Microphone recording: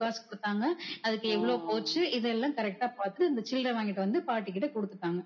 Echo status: present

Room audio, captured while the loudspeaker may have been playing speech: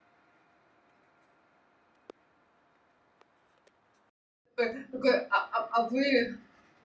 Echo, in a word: none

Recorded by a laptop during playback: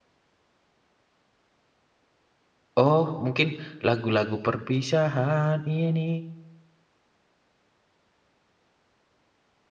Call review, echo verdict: none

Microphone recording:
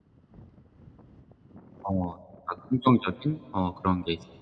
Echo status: none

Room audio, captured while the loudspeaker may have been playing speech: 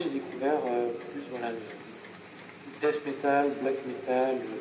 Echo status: present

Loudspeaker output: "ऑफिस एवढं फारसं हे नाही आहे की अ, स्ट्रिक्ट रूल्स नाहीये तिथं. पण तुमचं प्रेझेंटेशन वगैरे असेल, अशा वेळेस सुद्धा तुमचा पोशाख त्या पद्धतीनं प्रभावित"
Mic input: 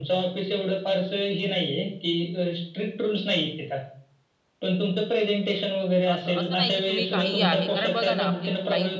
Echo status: present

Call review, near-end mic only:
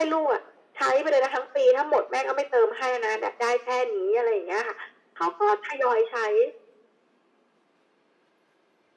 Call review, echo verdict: present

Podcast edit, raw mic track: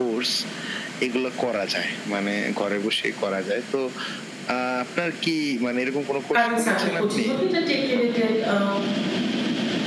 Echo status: present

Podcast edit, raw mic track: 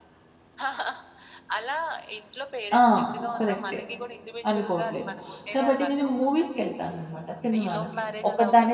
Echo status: present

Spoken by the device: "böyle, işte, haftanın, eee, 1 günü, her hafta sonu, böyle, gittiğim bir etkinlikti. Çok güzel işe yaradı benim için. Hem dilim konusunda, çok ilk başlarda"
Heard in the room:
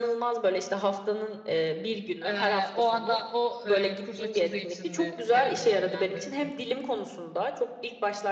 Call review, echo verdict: present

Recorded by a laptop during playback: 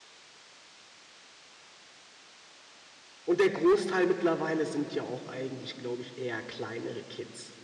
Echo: none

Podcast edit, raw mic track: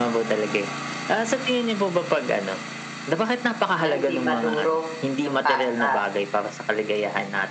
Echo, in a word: present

